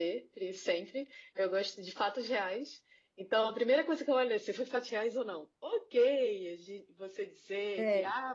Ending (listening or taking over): listening